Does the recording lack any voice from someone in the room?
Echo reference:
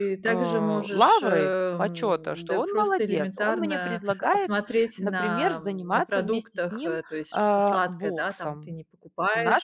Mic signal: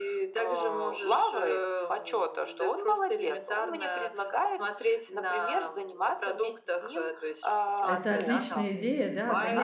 No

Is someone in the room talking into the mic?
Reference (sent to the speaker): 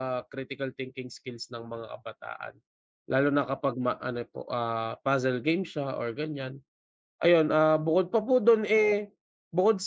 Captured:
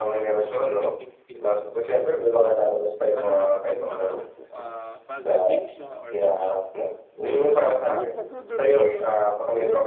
Yes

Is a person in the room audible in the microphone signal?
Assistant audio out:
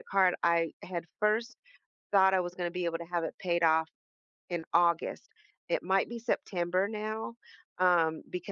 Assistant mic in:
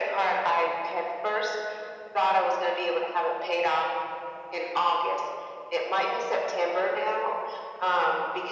No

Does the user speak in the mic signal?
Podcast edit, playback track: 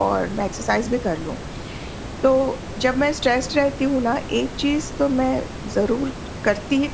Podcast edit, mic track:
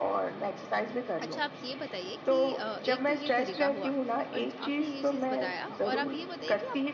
Yes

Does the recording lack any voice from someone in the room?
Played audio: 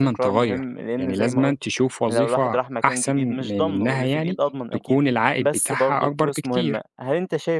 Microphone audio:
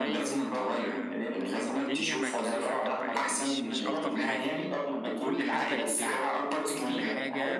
No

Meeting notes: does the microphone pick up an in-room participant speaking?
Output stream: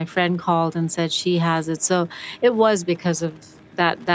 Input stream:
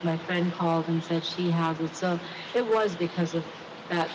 No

